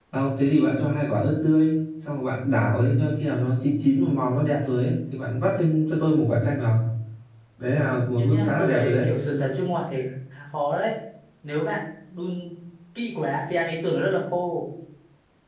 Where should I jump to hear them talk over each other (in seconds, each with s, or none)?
7.8 s